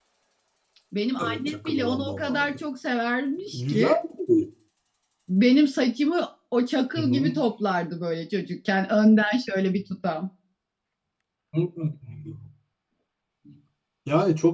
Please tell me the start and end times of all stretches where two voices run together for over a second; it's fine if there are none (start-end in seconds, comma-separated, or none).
1.2-2.5